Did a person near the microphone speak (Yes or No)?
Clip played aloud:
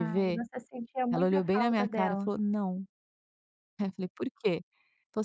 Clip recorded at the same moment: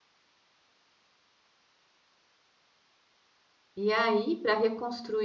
Yes